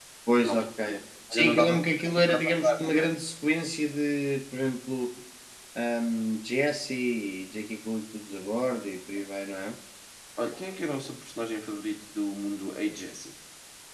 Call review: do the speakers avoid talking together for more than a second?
No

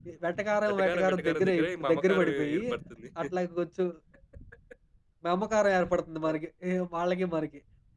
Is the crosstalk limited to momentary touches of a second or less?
No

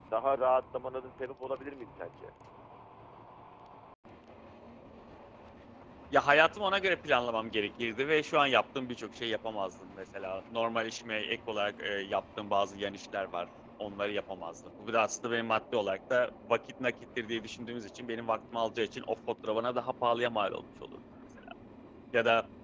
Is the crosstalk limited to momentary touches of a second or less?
Yes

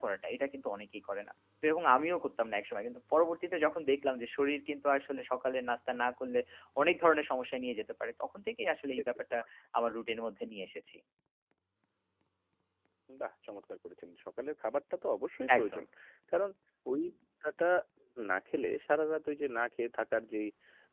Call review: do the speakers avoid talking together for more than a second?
Yes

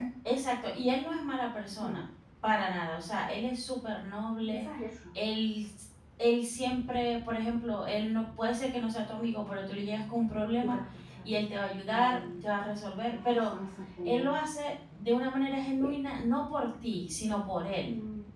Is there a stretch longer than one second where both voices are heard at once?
No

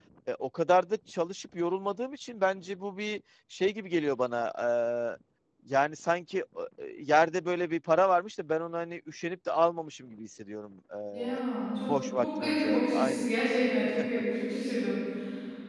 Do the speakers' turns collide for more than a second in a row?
Yes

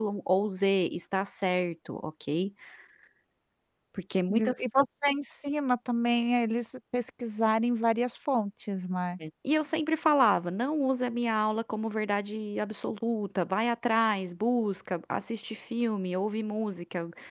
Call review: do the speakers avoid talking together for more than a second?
Yes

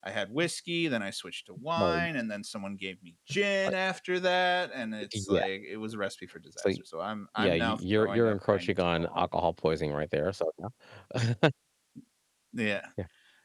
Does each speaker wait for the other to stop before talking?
No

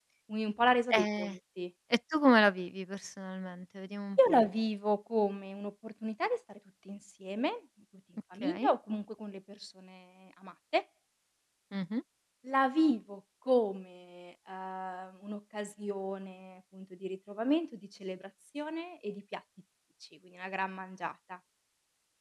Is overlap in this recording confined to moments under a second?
Yes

